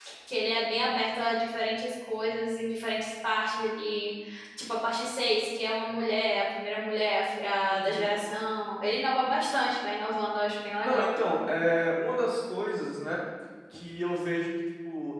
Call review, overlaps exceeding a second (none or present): none